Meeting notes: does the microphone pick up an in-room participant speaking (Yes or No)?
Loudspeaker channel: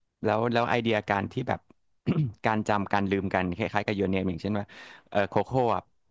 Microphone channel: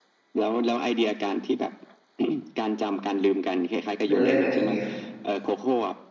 Yes